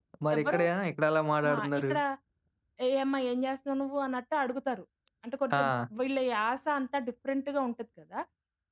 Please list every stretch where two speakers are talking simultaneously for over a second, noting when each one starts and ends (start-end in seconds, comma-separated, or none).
none